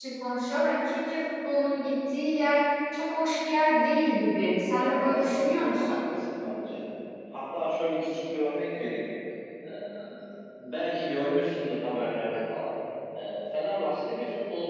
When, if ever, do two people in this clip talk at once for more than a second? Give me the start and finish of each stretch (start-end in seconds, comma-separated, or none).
4.7-6.0